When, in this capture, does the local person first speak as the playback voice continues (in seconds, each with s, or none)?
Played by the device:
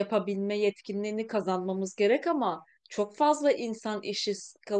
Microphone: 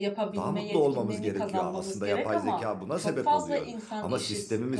0.3 s